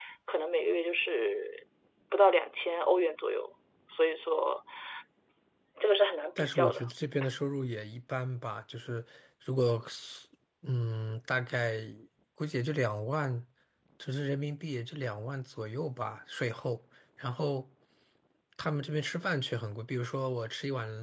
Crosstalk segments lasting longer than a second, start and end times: none

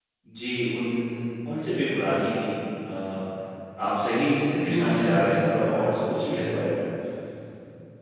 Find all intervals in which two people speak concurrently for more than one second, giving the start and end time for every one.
4.6-5.8

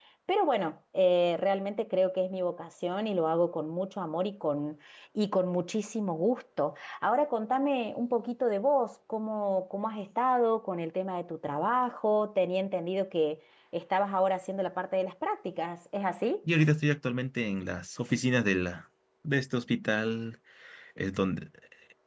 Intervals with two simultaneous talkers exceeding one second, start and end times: none

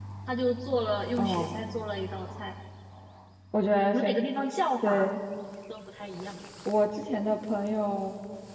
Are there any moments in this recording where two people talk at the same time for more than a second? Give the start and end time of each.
none

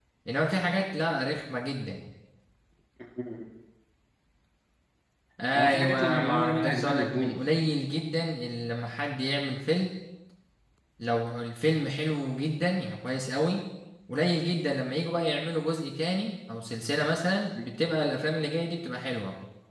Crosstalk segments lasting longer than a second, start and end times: 5.6-7.4

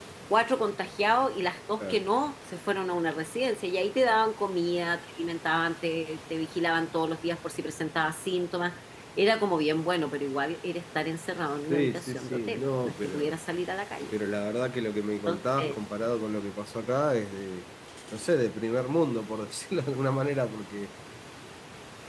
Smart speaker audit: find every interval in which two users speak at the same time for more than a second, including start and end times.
11.7-13.3

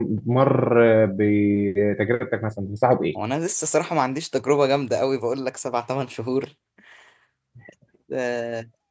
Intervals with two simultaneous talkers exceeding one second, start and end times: none

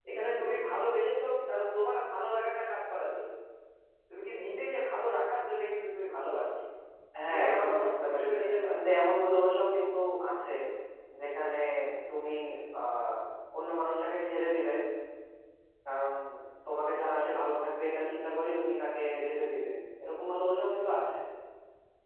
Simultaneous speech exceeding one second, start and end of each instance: 7.3-8.8

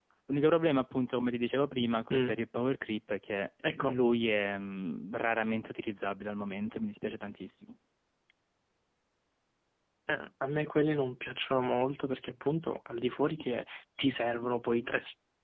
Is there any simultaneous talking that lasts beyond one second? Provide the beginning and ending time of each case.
none

